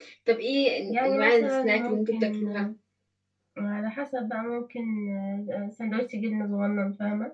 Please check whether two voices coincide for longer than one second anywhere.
Yes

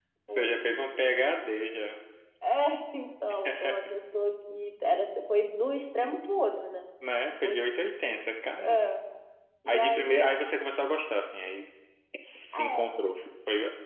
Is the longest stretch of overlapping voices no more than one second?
Yes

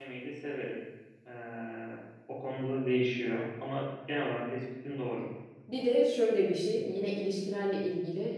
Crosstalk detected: No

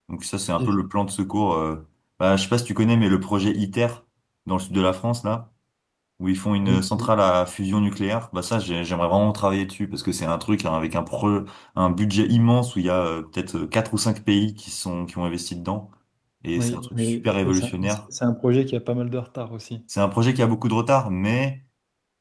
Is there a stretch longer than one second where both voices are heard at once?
Yes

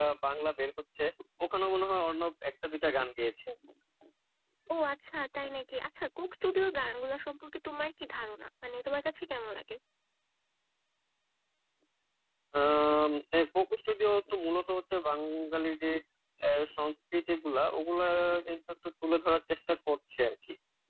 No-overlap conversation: Yes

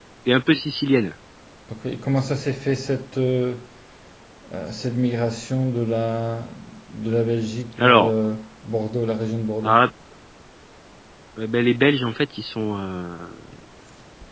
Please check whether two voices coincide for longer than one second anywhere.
No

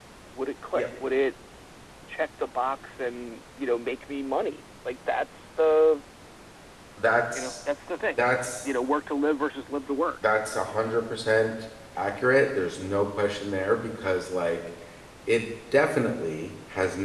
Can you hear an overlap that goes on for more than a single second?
No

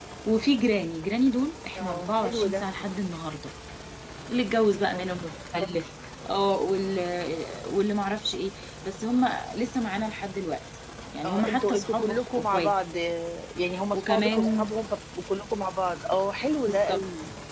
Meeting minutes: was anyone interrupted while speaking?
Yes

